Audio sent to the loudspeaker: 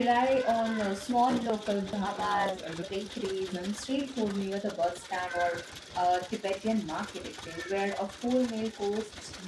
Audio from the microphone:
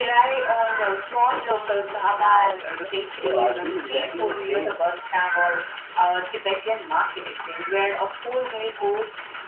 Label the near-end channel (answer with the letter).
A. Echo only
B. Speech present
B